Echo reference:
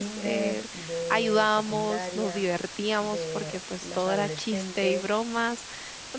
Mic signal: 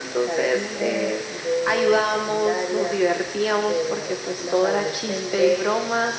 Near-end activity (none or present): none